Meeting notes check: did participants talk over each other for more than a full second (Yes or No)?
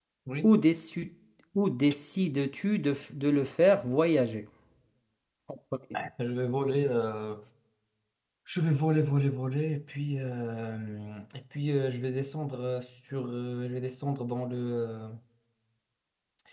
No